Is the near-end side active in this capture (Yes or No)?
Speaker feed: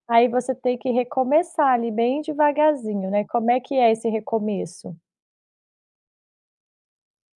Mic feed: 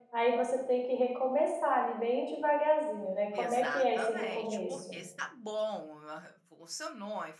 Yes